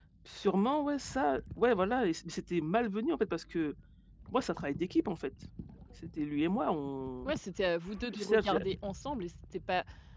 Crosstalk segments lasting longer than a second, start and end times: none

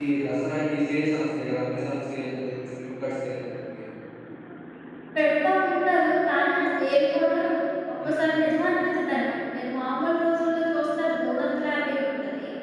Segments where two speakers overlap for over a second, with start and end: none

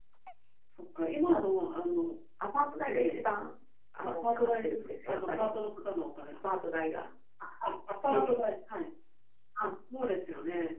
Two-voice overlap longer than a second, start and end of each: 4.0-5.5

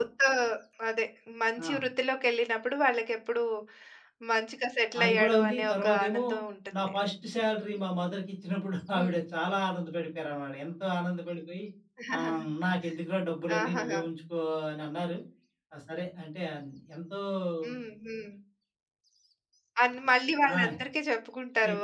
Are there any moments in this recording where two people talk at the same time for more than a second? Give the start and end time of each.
5.0-6.2

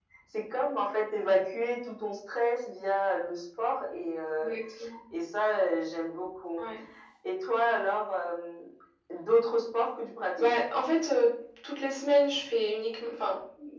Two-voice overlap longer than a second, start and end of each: none

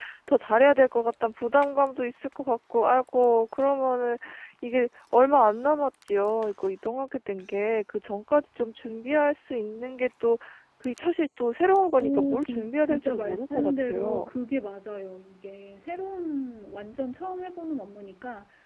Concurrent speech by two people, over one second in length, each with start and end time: 12.0-14.3

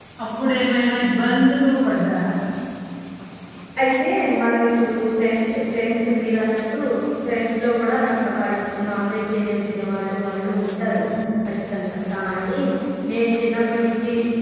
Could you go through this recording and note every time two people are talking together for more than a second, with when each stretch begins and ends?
none

